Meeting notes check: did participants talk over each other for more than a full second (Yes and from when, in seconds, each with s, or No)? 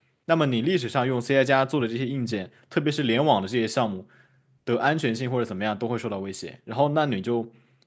No